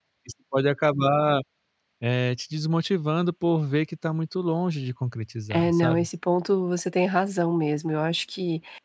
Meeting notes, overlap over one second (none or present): none